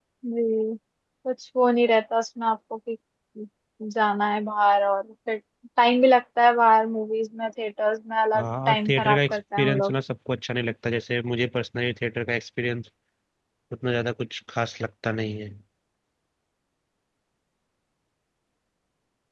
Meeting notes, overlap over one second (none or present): present